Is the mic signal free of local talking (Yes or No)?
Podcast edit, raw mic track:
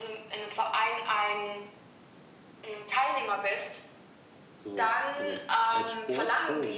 No